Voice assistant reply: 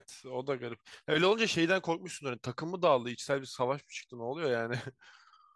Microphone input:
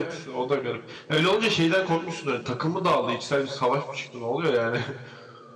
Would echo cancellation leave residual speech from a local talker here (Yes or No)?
No